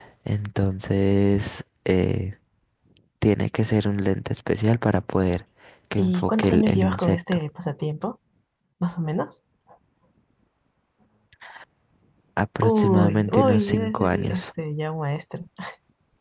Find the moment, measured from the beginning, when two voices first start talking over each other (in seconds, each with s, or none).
6.0 s